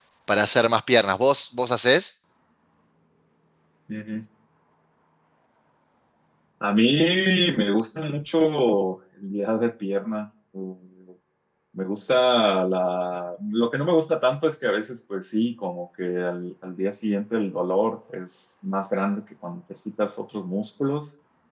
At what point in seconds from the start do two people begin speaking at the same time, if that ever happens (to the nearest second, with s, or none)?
none